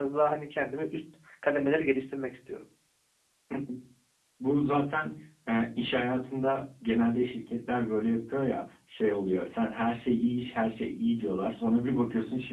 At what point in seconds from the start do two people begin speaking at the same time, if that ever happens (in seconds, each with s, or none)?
none